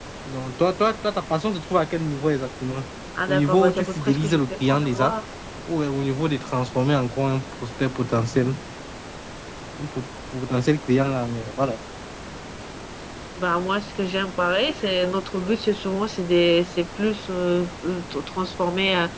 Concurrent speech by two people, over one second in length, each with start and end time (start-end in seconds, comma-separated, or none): 3.3-5.1